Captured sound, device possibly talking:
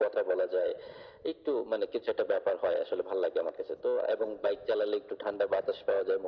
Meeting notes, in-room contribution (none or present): none